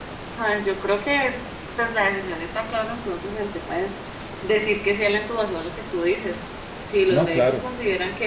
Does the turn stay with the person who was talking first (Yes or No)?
Yes